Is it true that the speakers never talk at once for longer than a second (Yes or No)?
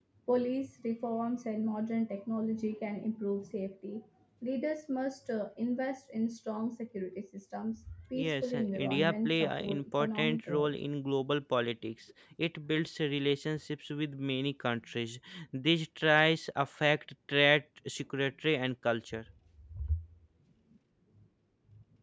No